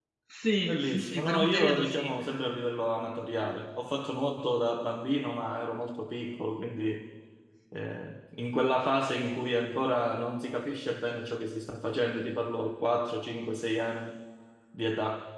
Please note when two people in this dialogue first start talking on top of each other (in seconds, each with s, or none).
0.6 s